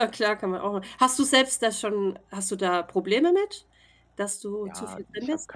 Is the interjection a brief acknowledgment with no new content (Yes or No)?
No